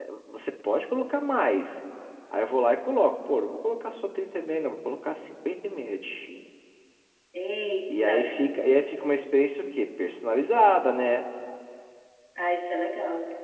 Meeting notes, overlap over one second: none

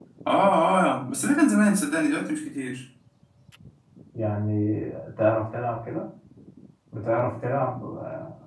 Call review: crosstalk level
none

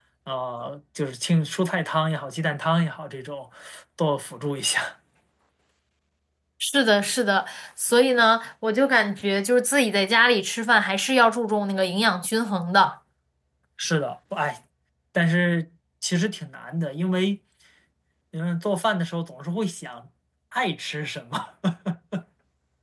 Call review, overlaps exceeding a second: none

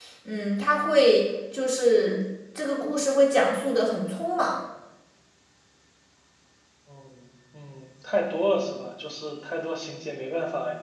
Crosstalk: none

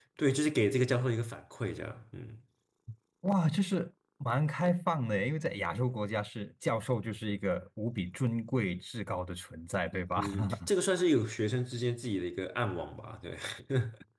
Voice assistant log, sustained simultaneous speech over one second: none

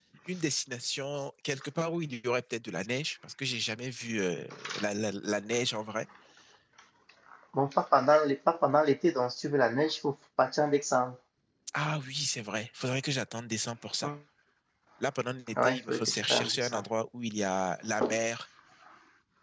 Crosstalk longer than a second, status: present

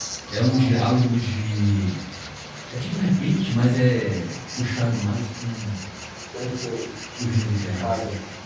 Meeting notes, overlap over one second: none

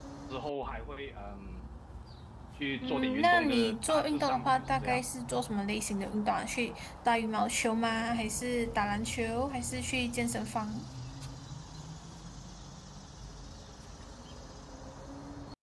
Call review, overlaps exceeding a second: present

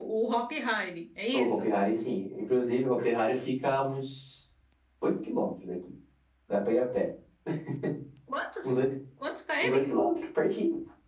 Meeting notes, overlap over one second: none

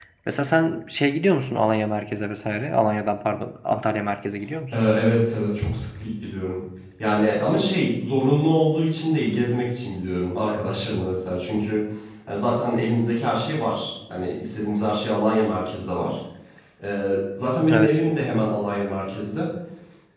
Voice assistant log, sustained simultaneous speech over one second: none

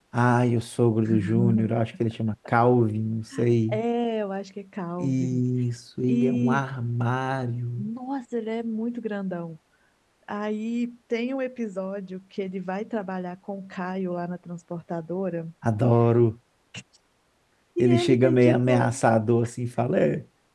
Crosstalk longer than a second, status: present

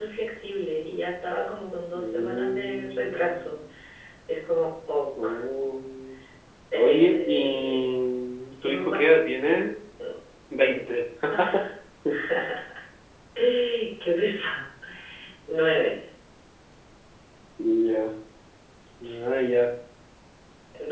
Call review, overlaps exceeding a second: present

